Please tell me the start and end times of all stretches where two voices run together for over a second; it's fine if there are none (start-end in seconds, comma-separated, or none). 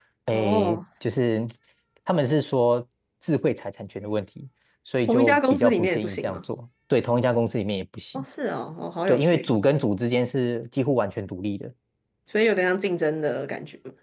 5.1-6.4